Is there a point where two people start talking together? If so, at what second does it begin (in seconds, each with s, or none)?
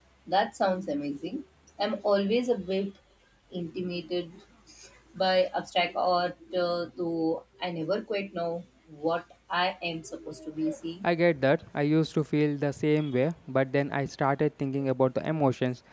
none